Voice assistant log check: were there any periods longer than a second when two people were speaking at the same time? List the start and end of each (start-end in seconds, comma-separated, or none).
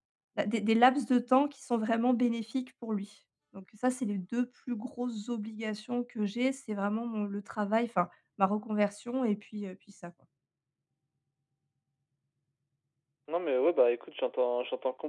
none